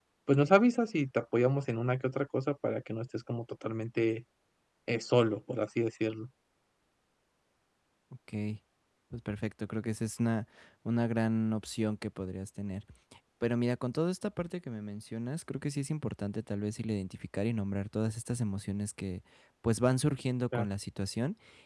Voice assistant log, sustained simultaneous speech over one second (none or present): none